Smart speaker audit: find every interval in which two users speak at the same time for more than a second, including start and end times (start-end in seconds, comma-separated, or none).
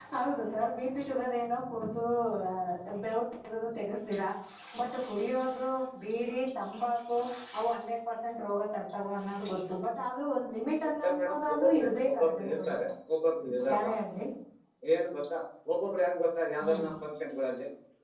11.0-12.7